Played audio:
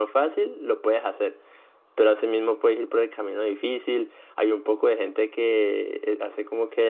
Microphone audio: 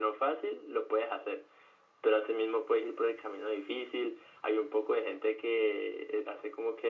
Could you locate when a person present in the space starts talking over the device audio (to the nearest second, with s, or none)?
none